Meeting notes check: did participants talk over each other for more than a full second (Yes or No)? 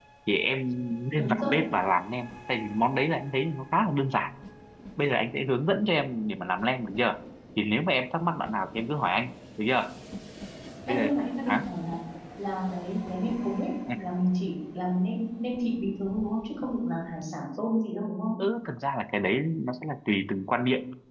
No